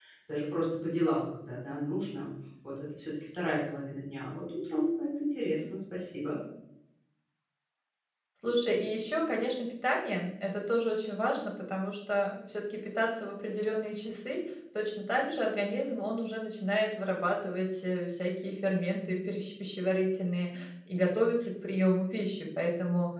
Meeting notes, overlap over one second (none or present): none